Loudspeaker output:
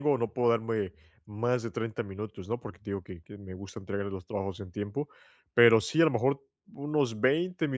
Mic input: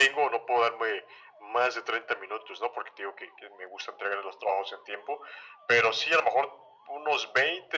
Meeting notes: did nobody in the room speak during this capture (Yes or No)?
Yes